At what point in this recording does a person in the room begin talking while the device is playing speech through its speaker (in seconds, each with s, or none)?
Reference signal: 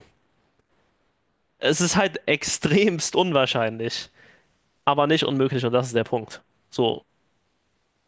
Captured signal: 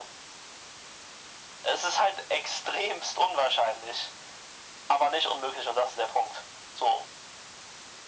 none